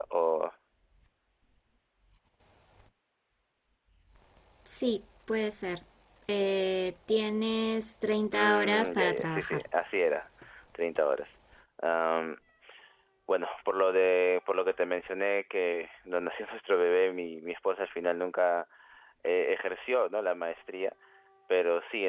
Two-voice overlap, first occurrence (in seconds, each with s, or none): 8.3 s